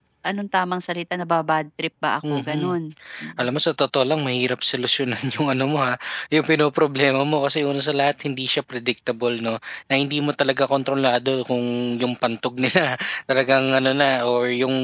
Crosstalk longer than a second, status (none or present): none